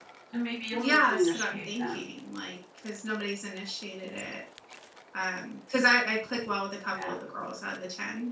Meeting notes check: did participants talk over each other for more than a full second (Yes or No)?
Yes